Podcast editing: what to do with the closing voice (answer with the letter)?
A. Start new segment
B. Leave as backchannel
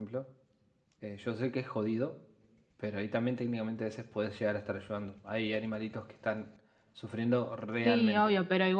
A